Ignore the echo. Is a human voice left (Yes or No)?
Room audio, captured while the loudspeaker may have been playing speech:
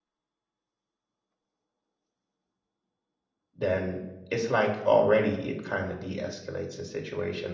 Yes